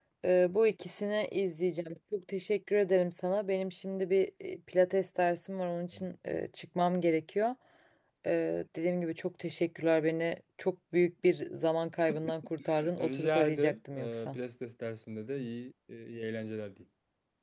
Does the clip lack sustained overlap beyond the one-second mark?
No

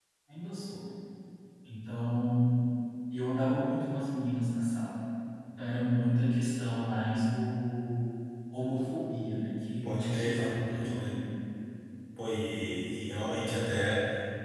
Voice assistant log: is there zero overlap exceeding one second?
No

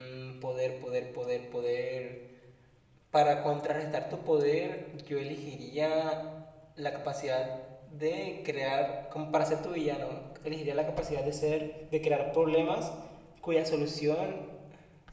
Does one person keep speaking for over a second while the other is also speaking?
No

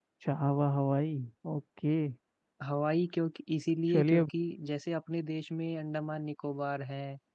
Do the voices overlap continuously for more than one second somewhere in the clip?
No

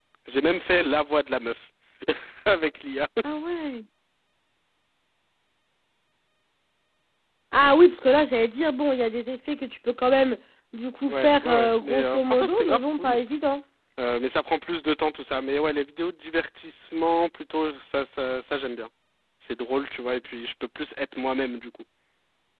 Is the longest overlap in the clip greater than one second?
Yes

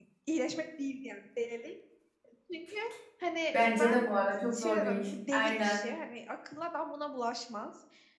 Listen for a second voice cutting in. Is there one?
Yes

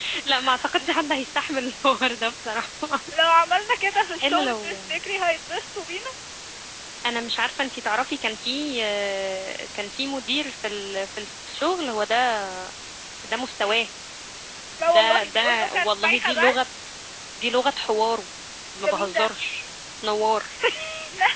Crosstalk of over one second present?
Yes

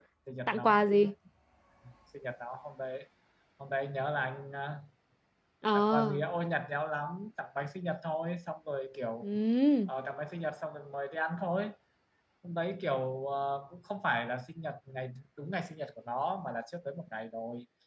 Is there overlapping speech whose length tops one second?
No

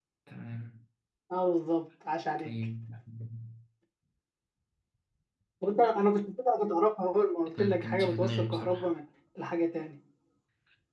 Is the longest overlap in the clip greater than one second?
Yes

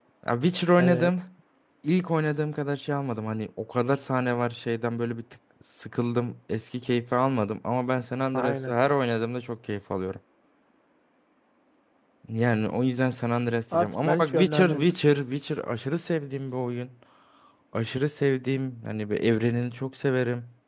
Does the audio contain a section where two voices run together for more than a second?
Yes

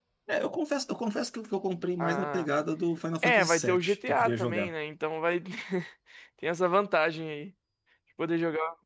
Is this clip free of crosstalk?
No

